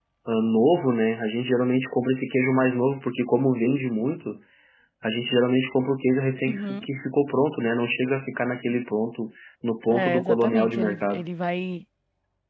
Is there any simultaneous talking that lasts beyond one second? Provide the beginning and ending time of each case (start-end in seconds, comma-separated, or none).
9.9-11.2